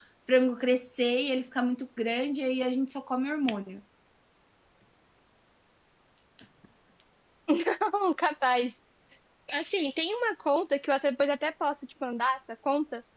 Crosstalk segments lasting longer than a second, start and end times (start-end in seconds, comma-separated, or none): none